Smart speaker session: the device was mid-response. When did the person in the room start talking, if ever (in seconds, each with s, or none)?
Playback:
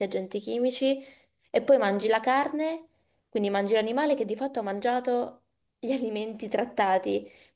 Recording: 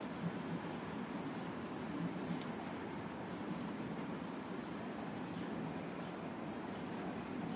none